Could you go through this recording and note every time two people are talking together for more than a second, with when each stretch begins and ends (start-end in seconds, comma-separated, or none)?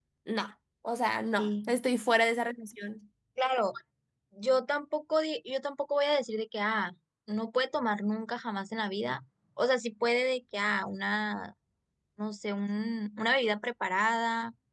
none